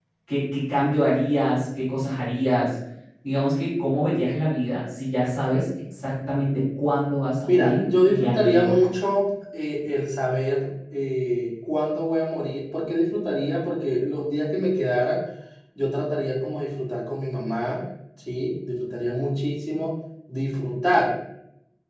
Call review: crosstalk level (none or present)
present